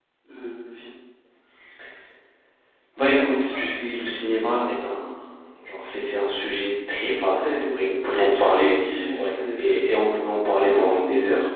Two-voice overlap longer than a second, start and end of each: 7.3-9.7

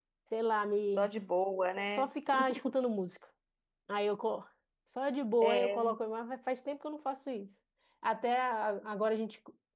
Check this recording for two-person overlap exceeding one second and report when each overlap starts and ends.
none

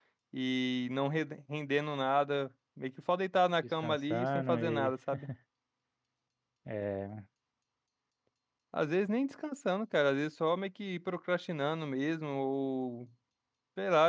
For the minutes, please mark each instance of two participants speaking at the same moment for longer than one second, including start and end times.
3.7-4.9

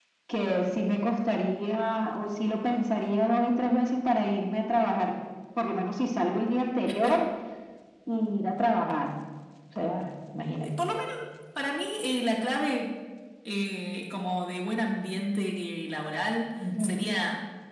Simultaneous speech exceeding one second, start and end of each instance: none

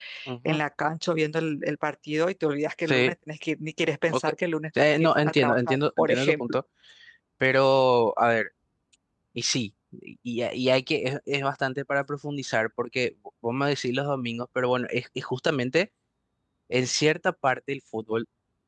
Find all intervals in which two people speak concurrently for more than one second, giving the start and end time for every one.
4.8-6.4

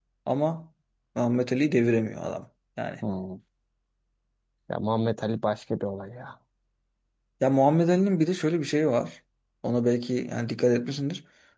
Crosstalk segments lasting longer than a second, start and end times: none

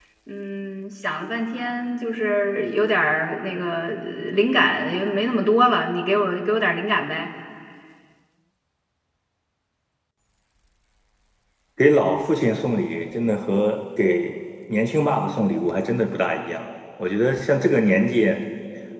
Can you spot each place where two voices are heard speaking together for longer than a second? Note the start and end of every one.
none

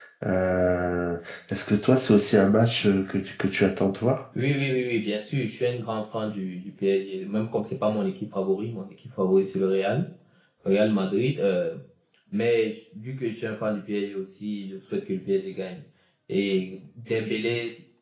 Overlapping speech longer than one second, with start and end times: none

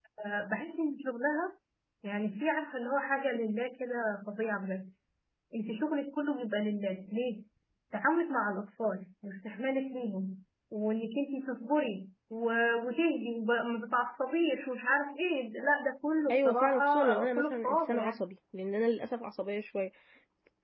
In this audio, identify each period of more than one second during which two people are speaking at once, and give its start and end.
16.3-18.2

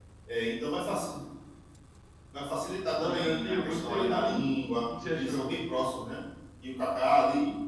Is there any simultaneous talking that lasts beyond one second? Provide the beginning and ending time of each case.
3.0-4.4

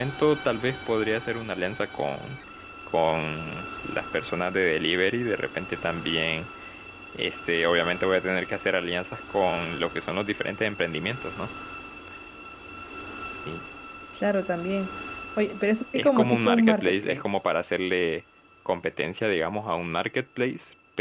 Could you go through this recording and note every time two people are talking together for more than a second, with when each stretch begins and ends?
15.9-17.4

